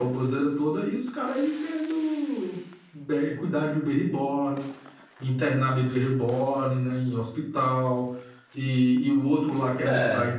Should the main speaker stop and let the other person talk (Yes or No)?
No